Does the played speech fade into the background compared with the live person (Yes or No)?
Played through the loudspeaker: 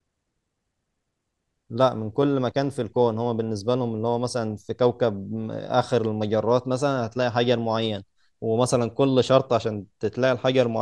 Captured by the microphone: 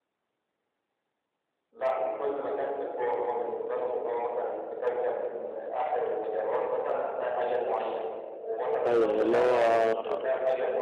Yes